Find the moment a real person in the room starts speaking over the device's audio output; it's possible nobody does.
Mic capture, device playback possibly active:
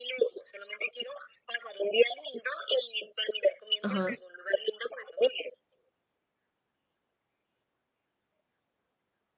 3.8 s

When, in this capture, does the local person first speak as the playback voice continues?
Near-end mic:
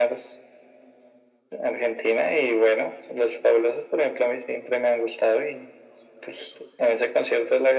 none

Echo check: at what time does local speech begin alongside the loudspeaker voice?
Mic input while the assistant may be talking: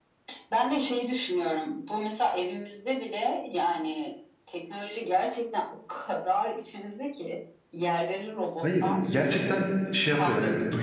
8.6 s

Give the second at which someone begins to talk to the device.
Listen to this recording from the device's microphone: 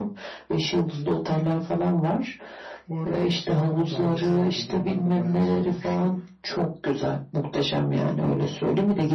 2.9 s

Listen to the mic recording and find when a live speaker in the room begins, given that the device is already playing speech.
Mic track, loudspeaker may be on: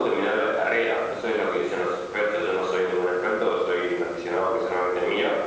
none

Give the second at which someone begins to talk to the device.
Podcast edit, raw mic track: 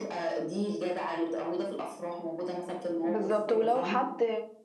3.0 s

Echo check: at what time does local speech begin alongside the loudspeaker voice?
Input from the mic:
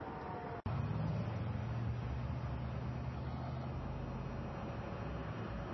none

